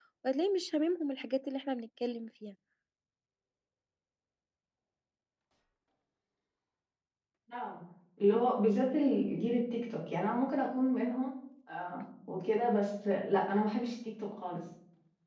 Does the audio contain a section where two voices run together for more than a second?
No

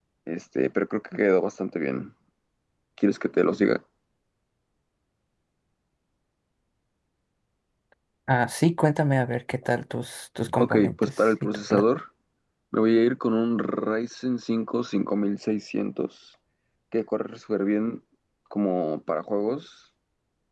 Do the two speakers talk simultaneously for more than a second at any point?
Yes, from 10.6 s

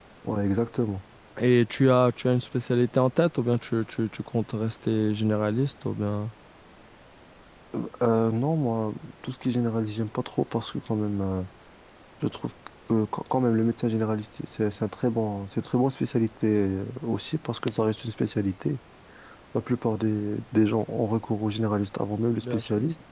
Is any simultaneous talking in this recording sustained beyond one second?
No

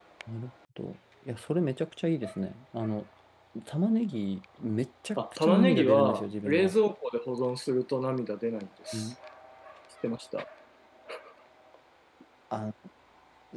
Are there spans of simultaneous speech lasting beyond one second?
Yes, from 5.2 s

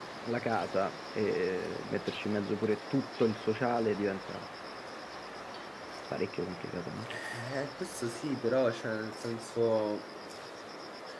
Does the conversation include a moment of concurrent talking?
No

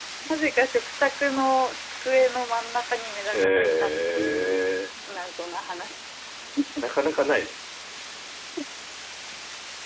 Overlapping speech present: Yes, from 3.3 s

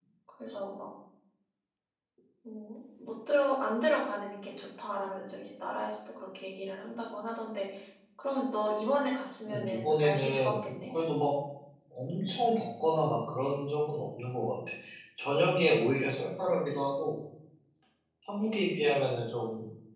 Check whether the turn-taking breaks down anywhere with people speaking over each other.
Yes, from 9.5 s

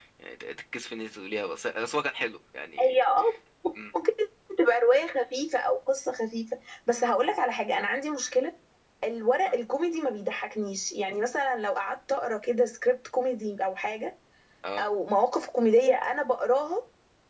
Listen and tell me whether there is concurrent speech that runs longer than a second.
No

